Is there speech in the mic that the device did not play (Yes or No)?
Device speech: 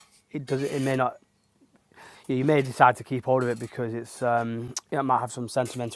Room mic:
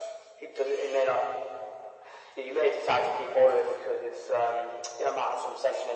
No